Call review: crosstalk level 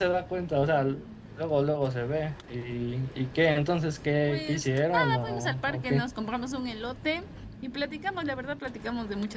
present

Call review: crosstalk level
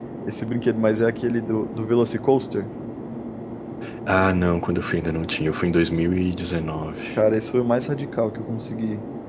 none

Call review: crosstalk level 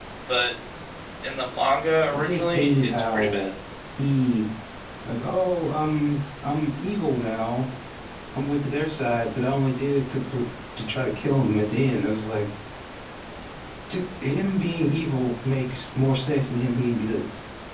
present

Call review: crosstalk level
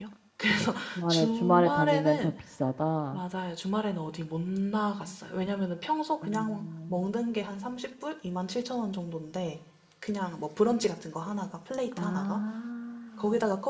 present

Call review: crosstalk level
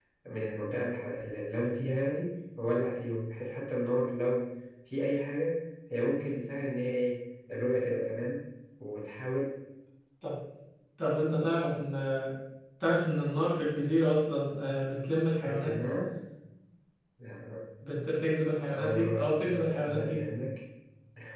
present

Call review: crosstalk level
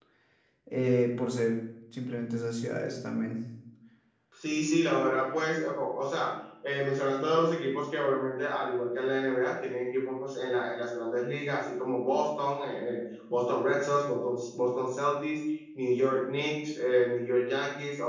none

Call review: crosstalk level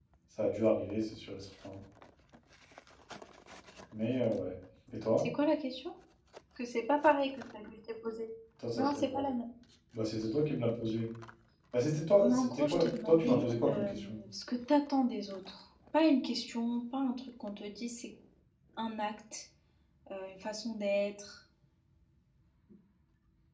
present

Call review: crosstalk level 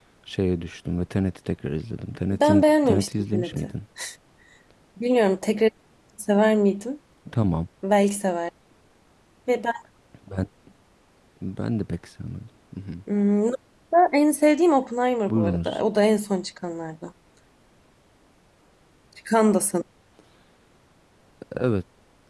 present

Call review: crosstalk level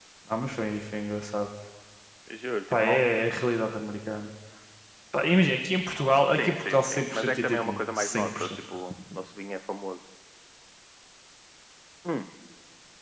present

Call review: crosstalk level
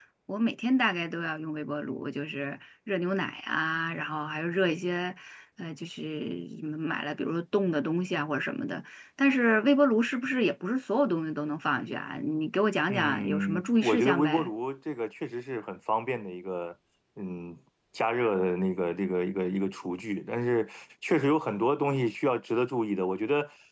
present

